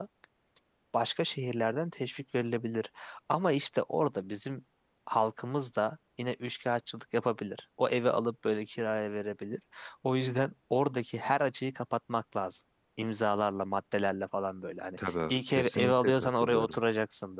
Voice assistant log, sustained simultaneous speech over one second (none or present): present